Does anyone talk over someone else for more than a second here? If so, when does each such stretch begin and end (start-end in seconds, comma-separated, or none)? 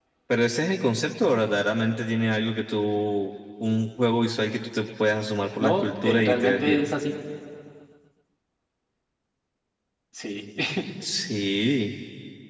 5.6-6.9